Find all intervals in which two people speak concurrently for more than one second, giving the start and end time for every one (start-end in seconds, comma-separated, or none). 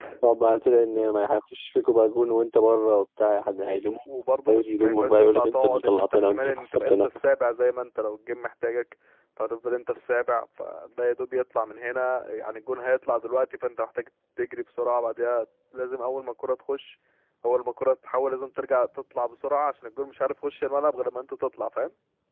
4.5-7.1